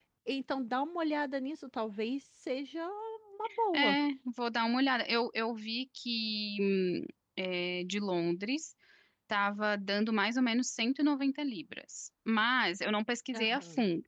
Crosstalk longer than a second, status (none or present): none